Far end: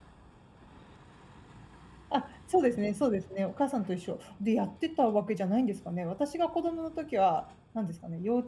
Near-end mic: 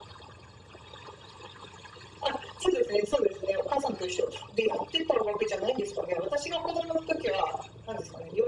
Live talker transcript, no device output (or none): none